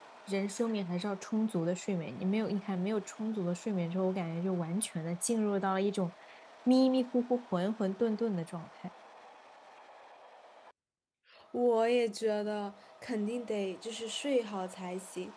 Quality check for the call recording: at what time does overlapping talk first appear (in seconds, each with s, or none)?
none